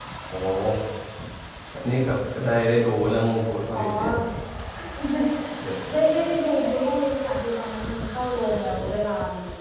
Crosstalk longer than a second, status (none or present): none